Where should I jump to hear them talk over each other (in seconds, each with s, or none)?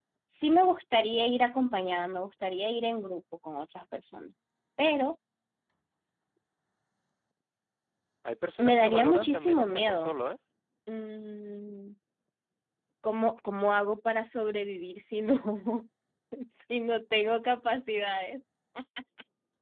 8.6 s